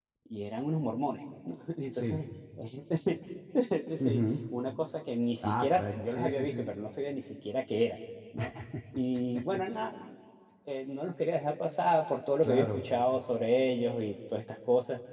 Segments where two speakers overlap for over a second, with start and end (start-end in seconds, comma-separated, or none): 5.4-6.7